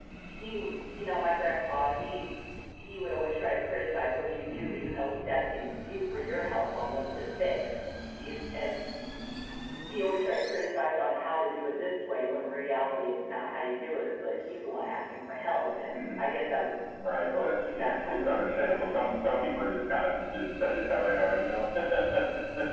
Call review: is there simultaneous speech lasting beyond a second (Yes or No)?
Yes